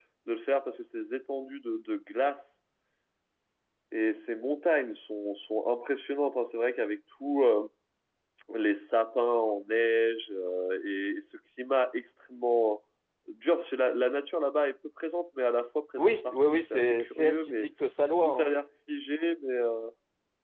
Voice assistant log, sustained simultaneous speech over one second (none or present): present